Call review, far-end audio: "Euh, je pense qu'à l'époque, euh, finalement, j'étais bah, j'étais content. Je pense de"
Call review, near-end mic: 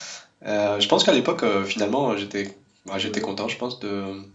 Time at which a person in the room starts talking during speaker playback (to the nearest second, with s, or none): 3 s